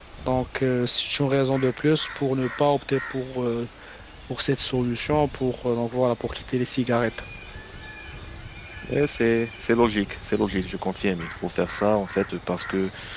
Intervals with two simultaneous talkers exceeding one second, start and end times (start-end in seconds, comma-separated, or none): none